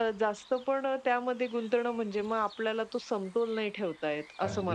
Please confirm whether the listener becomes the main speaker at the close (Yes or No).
Yes